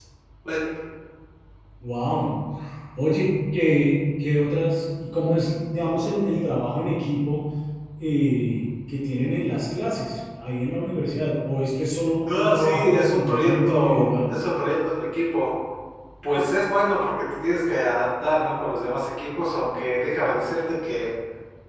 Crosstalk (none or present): present